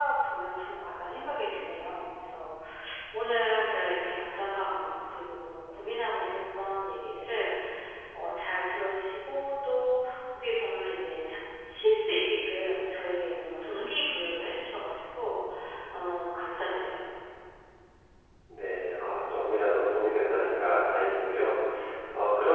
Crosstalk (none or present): none